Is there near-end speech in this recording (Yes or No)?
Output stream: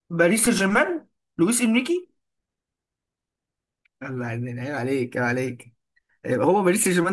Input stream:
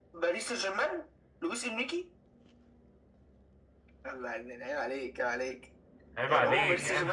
Yes